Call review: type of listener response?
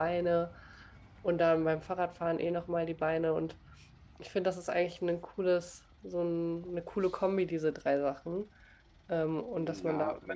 taking over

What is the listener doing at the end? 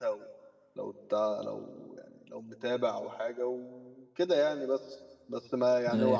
listening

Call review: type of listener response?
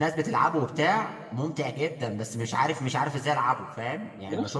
taking over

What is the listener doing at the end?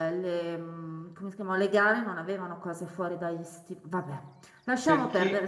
taking over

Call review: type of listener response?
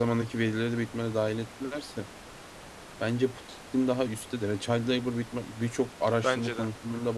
listening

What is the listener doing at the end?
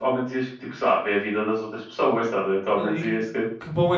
taking over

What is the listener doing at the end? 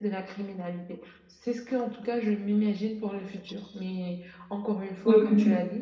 listening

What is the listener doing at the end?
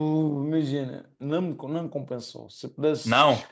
listening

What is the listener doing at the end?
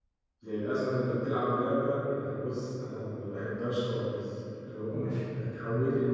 listening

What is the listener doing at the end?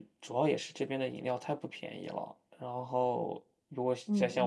taking over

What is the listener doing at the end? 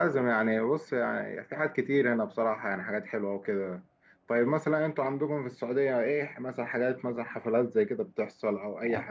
taking over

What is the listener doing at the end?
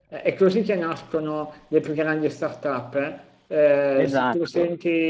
listening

